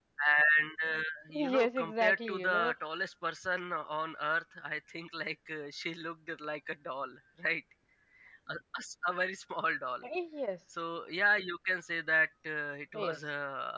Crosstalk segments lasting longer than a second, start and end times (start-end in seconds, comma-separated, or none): 1.3-2.7